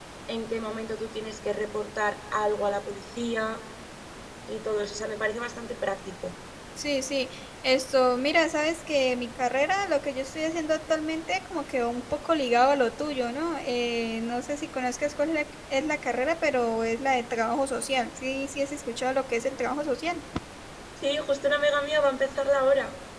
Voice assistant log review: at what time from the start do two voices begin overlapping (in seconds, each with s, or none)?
none